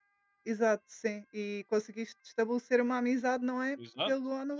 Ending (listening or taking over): taking over